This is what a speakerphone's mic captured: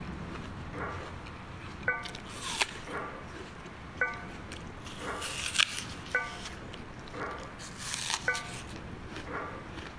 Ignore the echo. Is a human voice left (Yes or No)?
No